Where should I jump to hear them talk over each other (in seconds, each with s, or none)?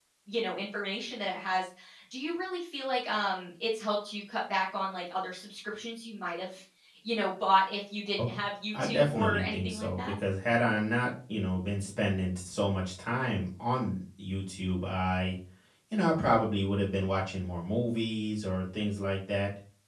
8.8 s